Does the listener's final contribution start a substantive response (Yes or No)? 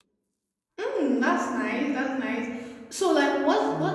No